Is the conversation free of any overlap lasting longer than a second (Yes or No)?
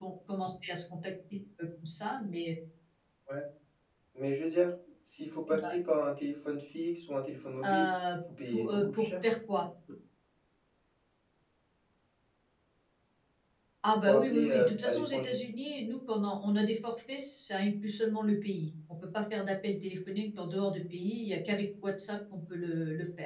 No